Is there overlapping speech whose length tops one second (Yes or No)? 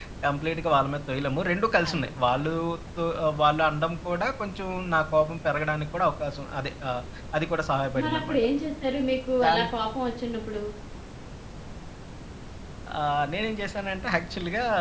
No